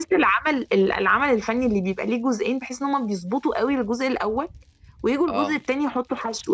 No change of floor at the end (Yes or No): Yes